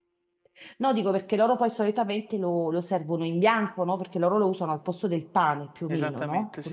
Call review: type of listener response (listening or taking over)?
taking over